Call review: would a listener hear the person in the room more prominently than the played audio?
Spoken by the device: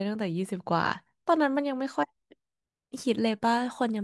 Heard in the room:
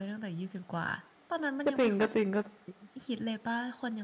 Yes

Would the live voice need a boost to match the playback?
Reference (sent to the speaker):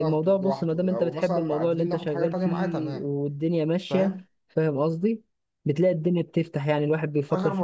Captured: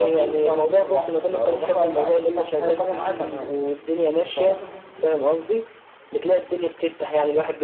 Yes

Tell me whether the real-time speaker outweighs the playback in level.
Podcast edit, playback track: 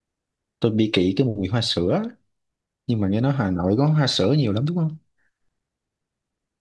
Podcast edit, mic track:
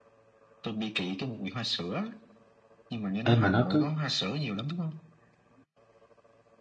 Yes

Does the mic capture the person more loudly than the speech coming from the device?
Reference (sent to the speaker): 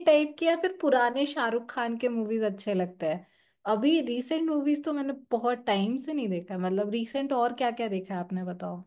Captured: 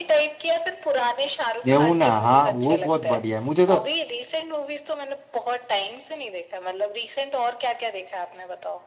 Yes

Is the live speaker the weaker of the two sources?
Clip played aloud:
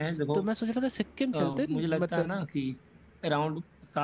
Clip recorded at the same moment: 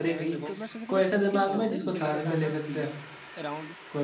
No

